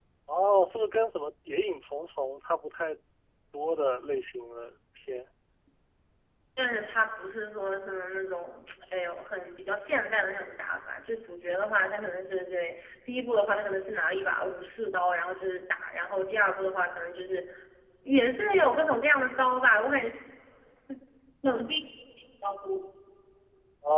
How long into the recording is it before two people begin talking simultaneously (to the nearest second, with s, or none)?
none